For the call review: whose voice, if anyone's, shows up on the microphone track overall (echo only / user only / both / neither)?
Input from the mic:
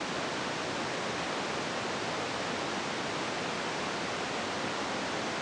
neither